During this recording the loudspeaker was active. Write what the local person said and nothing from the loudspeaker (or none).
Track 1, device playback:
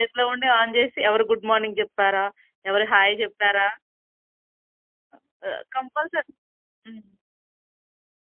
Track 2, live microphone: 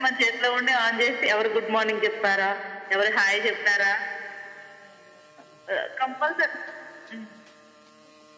none